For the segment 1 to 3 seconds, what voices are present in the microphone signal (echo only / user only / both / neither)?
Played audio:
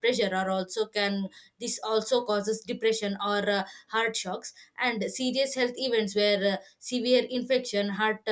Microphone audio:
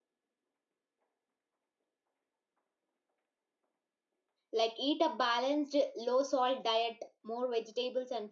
neither